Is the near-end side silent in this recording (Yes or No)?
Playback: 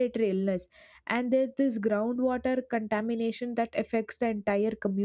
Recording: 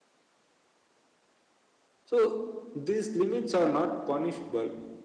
No